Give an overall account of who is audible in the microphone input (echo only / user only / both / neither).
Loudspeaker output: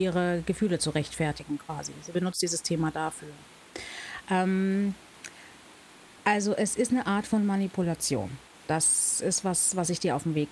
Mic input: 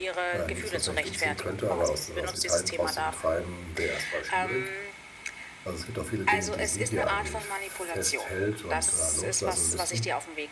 both